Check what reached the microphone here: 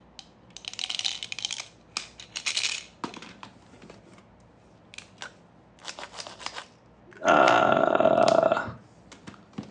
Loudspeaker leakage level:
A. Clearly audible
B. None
B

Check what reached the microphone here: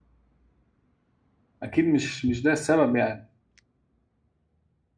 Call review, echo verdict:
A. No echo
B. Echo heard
A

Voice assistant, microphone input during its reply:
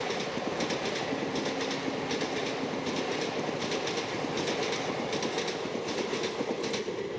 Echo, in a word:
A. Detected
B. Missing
B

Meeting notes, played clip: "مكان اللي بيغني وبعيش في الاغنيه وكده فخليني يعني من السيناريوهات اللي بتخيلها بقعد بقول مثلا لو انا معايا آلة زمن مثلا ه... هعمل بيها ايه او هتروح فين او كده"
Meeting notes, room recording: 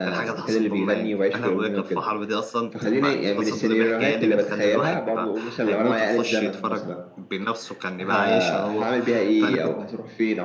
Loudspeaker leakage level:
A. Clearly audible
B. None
A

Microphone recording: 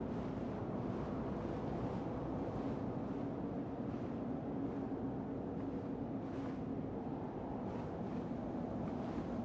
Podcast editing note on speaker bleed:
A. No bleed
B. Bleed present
A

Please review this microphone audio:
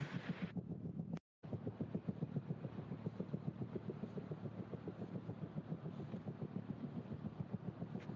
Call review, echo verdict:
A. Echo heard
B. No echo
B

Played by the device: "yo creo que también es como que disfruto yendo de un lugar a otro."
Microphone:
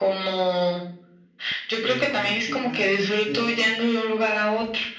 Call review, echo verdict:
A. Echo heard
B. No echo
A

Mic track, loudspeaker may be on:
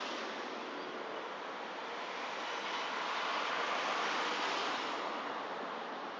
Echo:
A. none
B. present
A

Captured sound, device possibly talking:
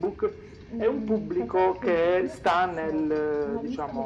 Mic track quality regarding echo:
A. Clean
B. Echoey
B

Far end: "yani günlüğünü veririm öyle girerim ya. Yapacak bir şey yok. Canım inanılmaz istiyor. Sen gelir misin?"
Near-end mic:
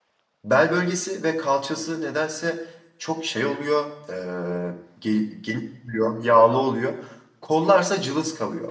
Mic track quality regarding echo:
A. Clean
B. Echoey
A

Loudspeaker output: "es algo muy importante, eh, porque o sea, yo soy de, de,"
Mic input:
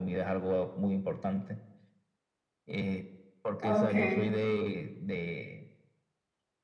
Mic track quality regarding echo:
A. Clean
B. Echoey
B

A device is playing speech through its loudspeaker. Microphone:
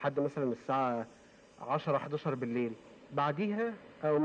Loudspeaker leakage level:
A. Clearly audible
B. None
A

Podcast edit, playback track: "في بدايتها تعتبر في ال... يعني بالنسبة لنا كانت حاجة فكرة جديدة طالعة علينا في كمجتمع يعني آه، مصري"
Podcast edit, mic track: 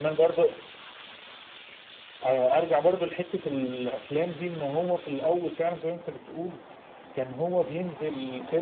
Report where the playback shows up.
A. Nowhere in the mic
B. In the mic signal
A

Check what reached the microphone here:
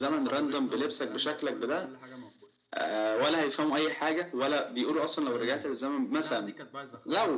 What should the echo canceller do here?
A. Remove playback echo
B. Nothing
A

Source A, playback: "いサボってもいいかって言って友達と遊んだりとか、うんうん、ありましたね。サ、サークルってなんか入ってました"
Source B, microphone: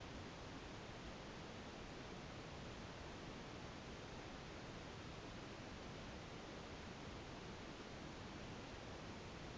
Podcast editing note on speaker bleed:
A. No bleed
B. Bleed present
A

